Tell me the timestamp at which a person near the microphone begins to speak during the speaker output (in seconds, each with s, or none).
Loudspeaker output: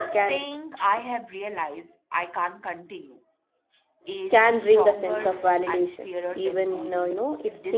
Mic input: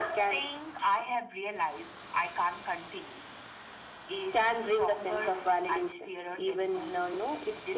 none